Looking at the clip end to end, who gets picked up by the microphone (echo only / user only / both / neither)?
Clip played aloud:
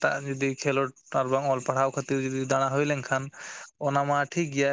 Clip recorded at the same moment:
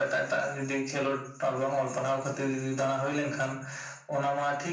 echo only